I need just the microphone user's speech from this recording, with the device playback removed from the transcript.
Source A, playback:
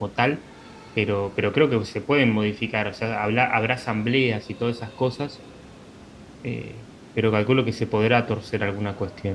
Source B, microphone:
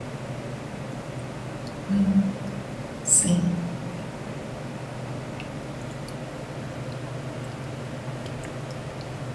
Mm, Sí.

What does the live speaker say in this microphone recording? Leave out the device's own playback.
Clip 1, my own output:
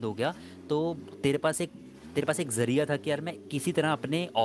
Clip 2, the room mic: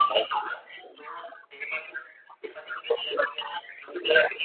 none

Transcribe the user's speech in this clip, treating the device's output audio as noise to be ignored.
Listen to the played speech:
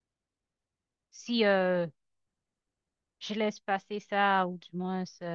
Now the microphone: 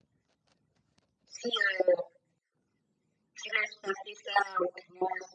none

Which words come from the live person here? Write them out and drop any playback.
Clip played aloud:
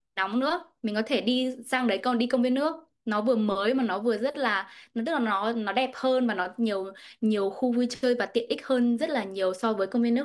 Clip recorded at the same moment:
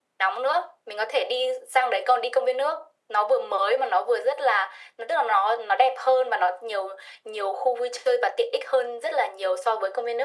none

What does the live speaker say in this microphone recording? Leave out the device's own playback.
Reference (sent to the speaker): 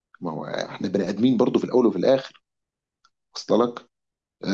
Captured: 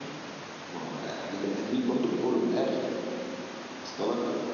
none

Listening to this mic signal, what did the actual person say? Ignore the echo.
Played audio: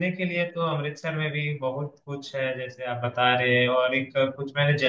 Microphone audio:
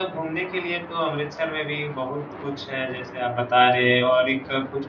none

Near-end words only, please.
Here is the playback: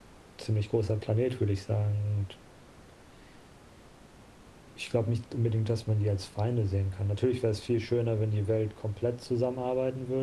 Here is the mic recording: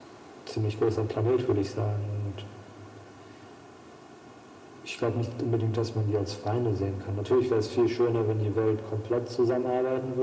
none

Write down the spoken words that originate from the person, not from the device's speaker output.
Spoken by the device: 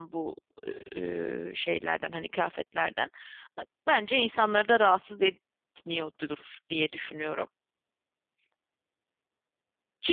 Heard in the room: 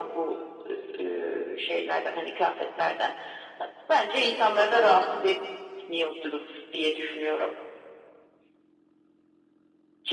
bir kapanalım,

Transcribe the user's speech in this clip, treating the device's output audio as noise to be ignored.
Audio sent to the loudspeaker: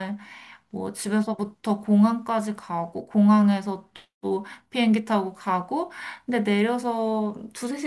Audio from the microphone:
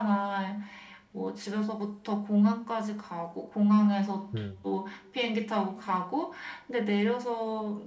음.

